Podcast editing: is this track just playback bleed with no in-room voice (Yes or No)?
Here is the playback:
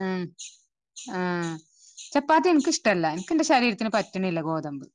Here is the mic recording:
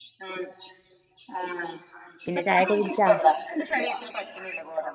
No